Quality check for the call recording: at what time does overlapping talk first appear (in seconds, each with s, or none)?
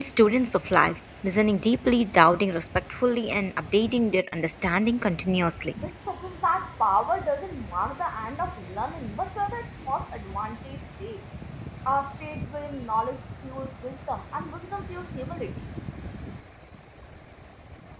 none